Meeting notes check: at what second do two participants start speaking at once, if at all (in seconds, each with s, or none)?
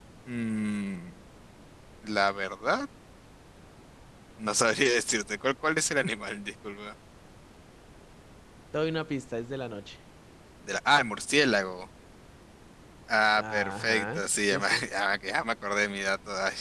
13.4 s